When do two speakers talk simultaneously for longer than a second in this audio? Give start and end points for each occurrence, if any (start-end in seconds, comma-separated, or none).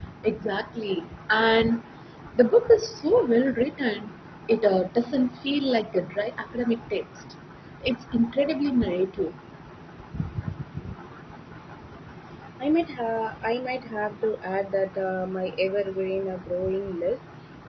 none